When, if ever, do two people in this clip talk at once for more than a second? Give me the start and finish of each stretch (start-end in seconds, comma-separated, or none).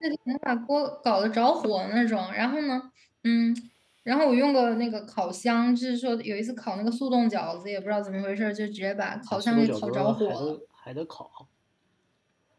9.3-10.5